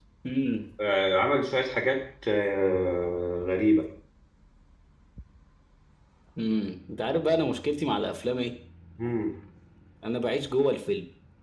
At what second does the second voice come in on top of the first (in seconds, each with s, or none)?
none